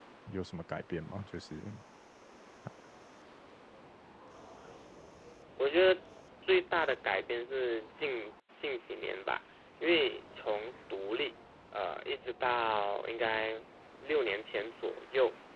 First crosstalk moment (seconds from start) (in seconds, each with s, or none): none